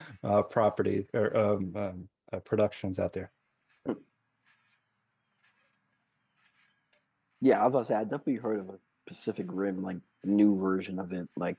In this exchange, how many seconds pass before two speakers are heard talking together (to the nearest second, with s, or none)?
none